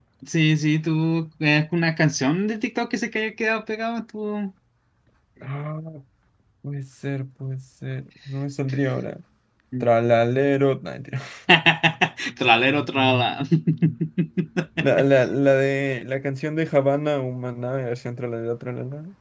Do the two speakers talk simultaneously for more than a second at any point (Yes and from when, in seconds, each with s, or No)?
No